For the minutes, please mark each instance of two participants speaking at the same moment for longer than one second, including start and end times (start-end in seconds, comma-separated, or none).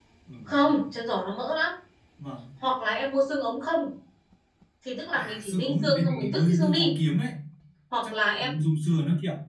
5.1-7.0